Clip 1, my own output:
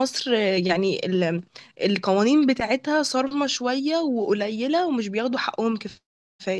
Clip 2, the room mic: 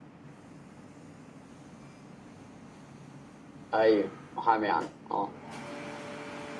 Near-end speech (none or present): present